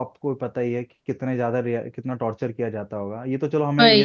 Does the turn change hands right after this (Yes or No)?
No